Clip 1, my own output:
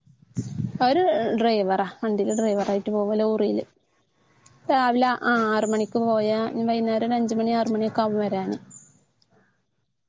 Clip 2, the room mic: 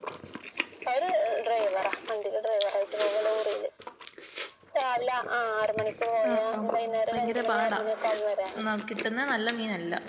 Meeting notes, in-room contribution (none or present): present